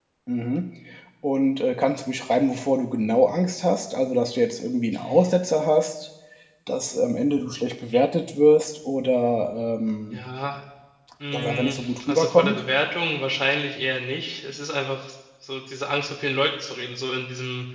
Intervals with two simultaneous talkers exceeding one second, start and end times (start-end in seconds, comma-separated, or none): 11.3-12.6